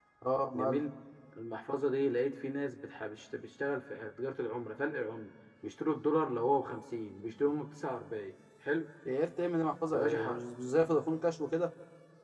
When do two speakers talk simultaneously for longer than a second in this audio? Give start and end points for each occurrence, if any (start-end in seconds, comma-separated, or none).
none